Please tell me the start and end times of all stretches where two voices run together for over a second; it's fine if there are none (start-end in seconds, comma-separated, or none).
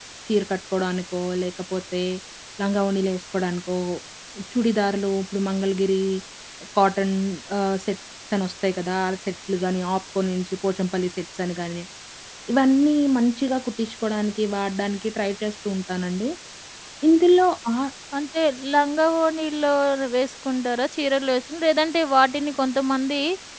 none